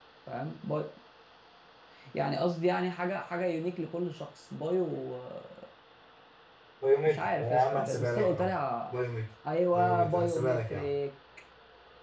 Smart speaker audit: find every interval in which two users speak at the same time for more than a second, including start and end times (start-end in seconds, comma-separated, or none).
7.1-8.5, 9.7-10.9